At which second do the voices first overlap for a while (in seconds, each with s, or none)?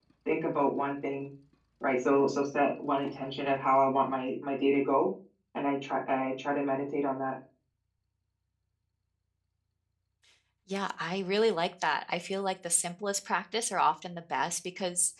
none